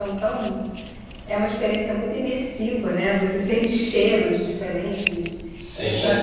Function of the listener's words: taking over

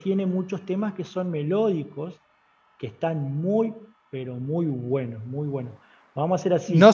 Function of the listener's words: taking over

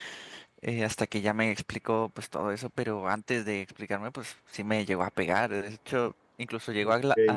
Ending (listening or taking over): listening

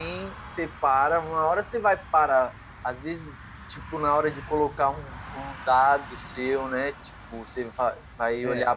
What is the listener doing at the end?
listening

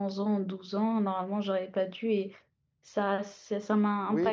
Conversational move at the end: taking over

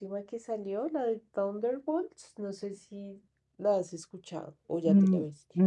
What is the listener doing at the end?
taking over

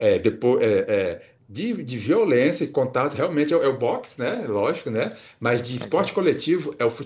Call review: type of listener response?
listening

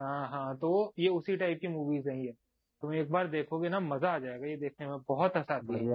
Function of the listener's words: taking over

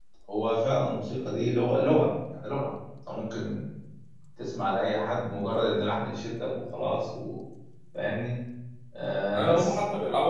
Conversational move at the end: taking over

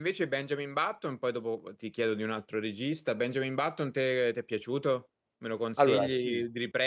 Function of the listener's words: listening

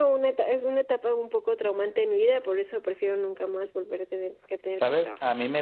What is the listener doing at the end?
taking over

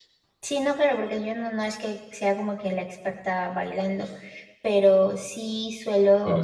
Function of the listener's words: listening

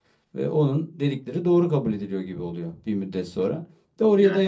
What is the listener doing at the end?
listening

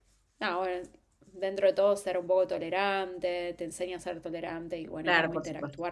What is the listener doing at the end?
taking over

